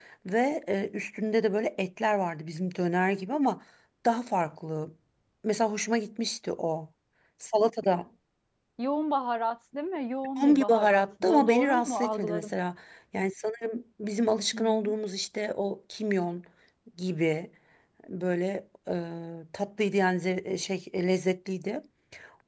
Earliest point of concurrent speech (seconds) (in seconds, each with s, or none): 10.4 s